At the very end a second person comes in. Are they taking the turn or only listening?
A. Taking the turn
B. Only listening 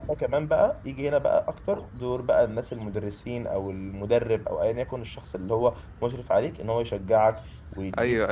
A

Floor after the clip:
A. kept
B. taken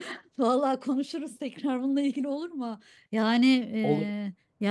A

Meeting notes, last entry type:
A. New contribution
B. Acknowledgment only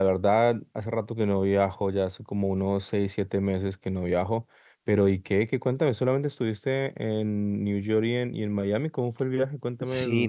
A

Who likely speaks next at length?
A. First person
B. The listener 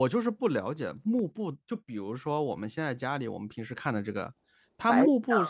A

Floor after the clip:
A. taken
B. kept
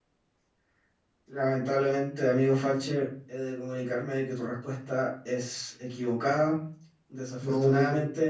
B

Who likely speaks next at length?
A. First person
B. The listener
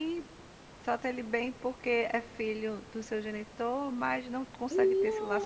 B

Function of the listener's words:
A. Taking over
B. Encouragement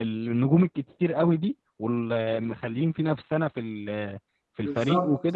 B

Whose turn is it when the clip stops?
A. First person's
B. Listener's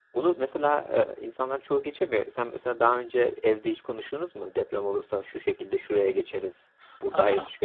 B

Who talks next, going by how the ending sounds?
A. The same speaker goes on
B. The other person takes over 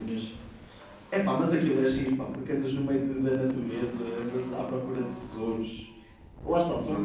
A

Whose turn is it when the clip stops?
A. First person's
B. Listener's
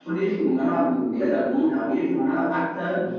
A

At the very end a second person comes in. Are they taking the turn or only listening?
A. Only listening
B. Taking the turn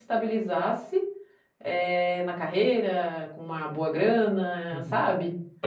B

